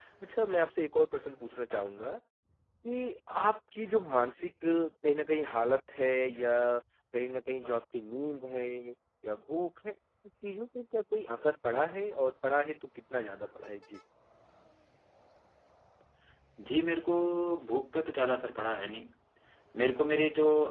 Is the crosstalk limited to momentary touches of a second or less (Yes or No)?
Yes